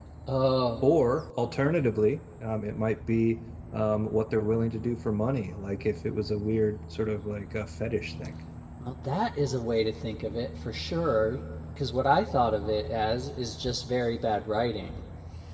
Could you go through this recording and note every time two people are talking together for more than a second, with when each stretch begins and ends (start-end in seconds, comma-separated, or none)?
none